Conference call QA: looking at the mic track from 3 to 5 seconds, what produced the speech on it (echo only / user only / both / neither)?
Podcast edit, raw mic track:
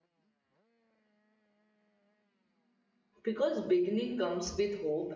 user only